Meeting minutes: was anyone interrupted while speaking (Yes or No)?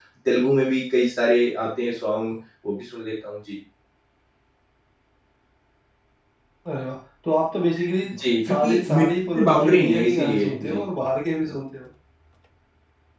Yes